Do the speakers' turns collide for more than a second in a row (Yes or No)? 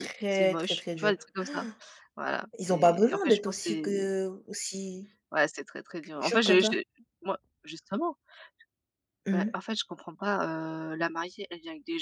Yes